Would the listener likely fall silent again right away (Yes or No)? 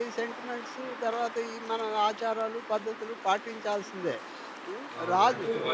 No